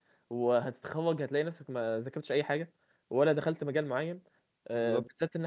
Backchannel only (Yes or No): Yes